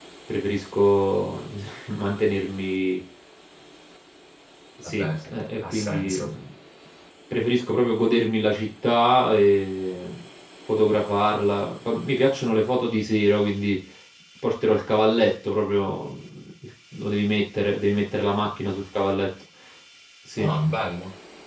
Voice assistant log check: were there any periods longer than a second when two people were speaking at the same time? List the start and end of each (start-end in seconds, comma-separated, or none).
4.8-6.3